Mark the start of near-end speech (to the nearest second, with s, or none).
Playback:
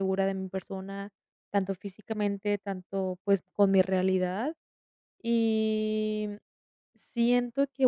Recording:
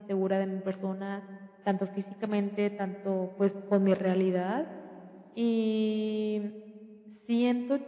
none